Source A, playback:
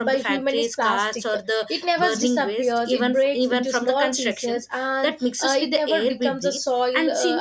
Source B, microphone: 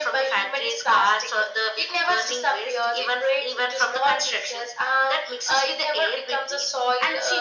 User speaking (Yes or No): No